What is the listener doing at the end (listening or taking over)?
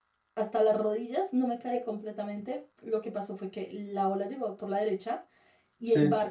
listening